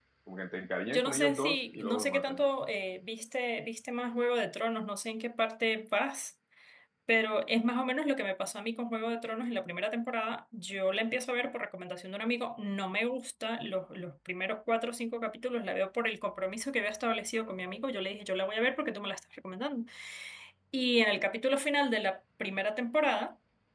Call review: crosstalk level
present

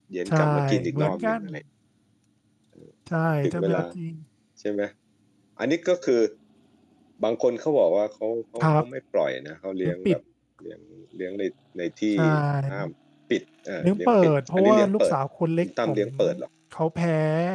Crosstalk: present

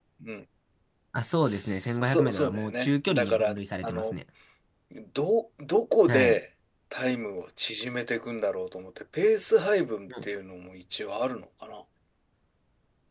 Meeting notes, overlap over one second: present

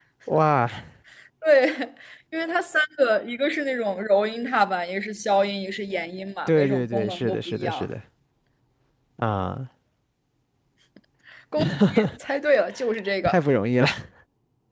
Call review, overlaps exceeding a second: present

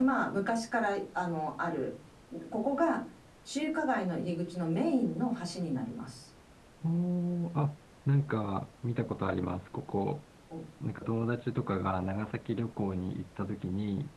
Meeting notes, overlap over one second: none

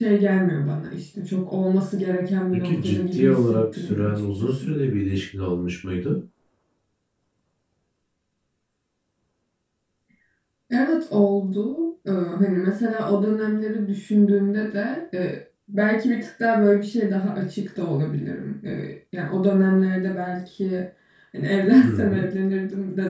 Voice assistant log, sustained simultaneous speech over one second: present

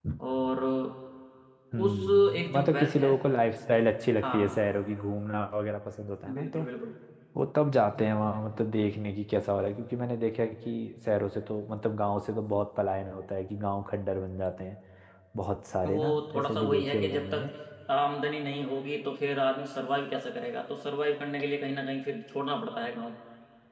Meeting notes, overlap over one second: present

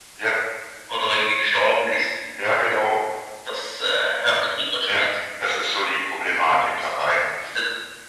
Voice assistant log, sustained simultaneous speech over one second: none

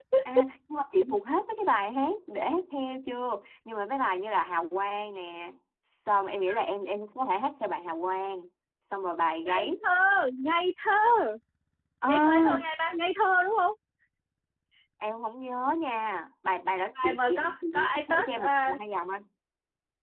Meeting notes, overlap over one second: present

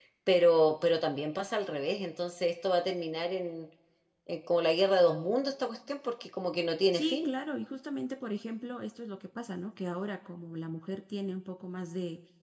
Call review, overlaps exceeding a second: none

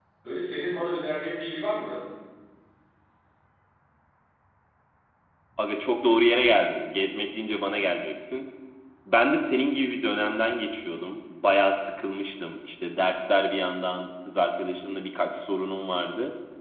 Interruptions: none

